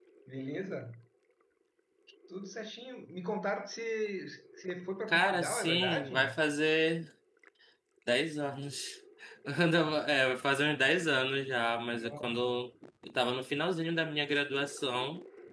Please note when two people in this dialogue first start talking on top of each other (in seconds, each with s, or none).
5.1 s